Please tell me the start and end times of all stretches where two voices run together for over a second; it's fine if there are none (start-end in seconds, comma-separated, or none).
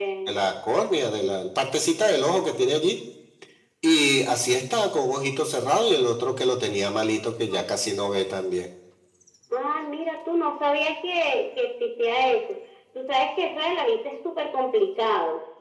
none